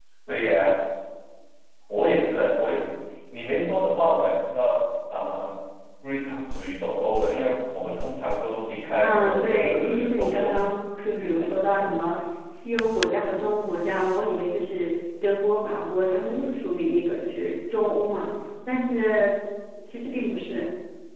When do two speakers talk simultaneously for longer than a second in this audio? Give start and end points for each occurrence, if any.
9.0-10.6

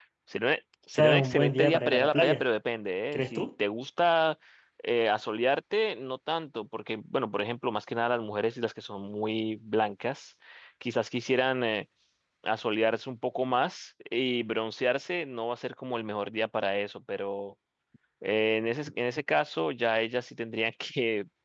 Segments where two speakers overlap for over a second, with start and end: 1.0-2.4

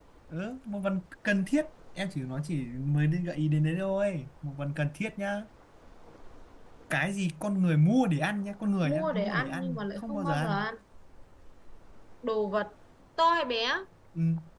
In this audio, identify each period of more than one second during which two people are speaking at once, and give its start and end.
8.8-10.6

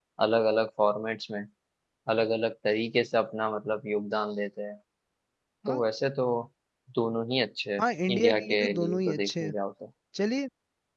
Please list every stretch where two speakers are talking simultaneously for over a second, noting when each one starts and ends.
7.8-9.5

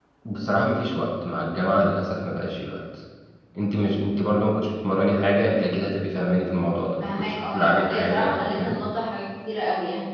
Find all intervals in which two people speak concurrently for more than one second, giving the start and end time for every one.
7.0-8.8

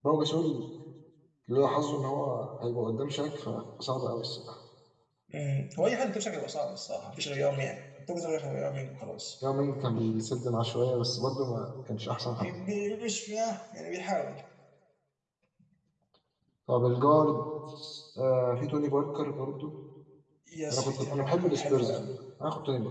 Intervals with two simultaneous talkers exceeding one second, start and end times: 20.7-22.0

